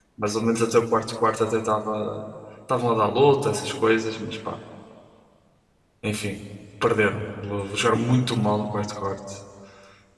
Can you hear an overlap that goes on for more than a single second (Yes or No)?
No